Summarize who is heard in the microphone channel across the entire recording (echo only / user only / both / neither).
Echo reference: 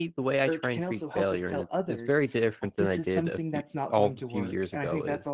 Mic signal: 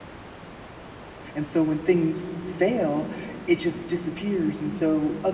user only